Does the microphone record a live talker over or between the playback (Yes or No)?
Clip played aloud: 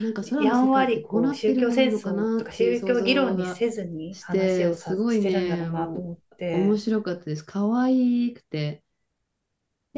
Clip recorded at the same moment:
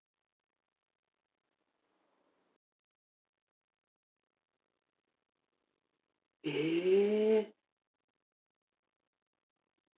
Yes